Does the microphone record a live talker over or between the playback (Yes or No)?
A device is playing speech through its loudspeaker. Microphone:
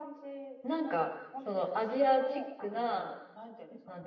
Yes